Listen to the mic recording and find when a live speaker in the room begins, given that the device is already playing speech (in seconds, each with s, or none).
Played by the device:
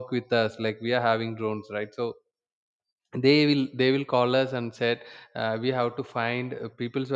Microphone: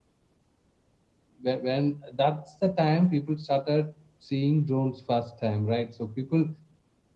1.4 s